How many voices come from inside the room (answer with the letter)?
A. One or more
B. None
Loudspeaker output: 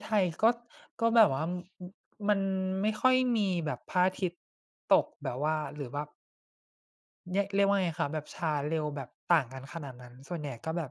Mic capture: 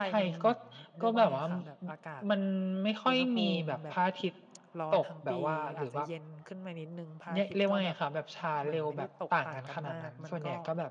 A